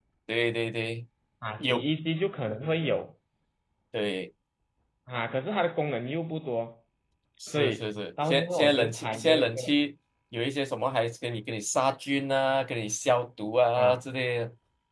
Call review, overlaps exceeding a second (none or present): present